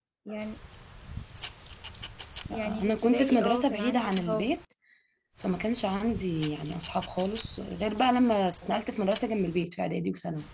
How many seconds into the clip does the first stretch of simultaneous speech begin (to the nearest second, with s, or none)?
3 s